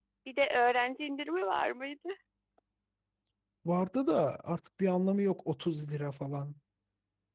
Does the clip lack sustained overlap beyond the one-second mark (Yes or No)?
Yes